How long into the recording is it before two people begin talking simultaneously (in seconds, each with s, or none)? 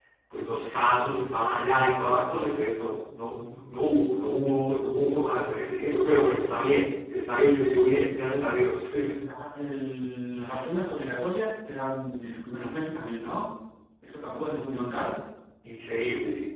none